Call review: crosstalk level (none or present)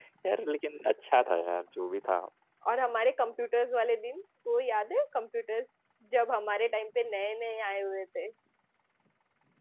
none